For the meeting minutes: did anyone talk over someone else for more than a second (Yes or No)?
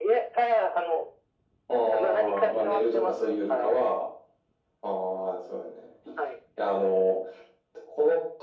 Yes